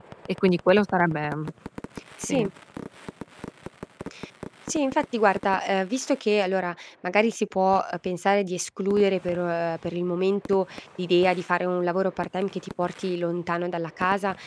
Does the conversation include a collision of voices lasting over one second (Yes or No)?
No